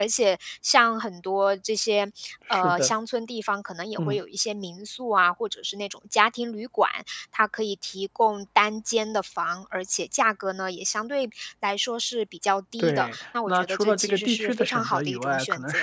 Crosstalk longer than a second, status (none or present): present